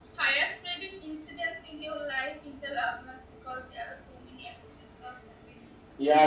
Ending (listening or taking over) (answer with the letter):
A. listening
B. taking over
B